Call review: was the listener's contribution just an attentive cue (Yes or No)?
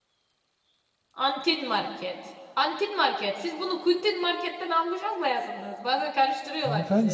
No